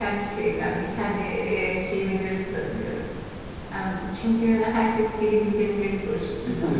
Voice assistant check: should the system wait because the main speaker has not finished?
No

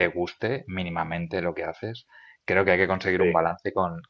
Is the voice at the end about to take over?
No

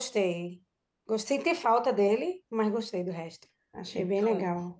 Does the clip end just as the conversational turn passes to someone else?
Yes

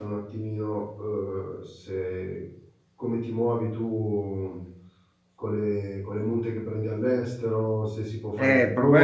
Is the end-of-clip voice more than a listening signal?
Yes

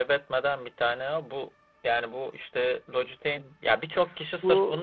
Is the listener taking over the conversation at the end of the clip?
No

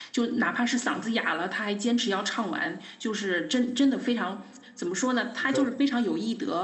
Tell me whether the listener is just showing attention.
Yes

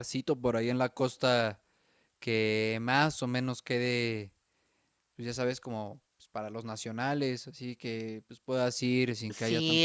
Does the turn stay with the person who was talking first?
No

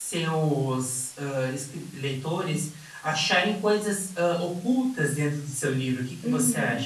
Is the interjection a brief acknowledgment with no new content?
No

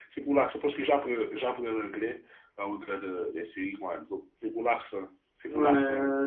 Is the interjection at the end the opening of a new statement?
Yes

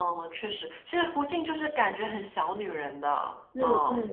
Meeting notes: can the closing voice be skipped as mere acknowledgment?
No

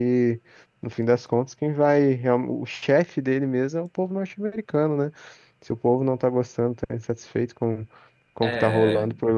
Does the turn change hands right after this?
No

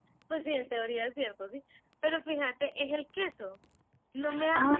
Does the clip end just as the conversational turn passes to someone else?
No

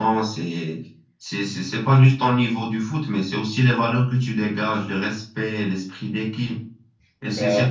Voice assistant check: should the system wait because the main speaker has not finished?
Yes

